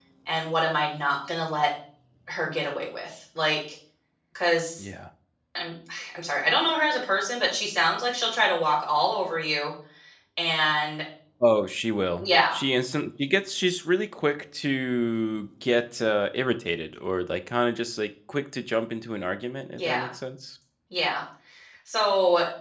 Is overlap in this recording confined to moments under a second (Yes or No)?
Yes